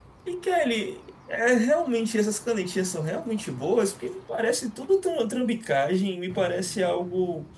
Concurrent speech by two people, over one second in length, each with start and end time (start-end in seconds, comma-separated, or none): none